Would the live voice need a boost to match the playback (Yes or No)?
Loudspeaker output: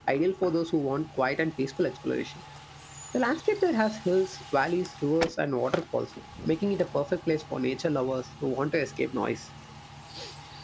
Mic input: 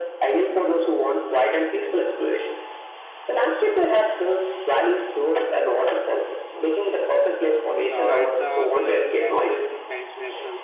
Yes